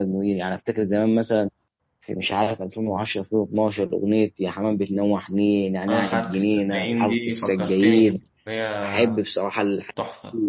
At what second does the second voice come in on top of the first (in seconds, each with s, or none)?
5.9 s